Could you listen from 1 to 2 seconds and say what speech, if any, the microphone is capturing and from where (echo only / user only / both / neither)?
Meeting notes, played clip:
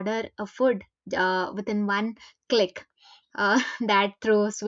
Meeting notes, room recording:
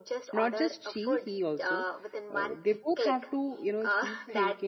both